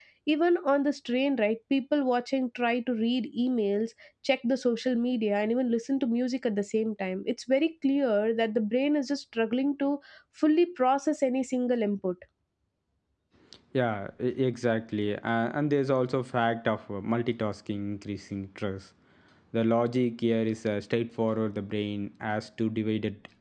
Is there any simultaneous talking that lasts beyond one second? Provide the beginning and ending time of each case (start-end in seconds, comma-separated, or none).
none